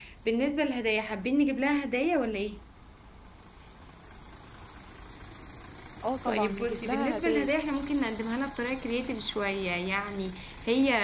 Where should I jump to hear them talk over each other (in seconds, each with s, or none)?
6.3 s